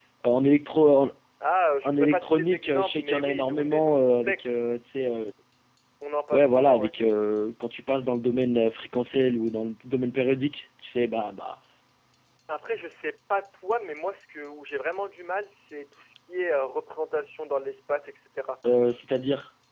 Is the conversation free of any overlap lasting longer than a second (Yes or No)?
No